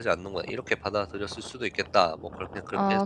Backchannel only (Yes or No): No